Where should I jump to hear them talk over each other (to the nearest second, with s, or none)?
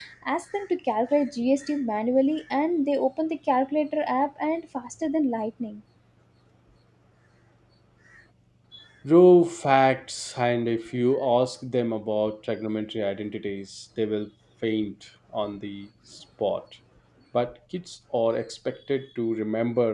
none